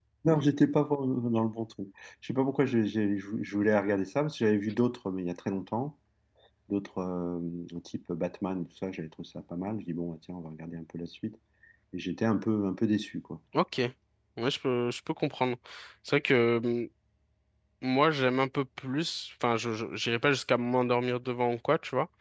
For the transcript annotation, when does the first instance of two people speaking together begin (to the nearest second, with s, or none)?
none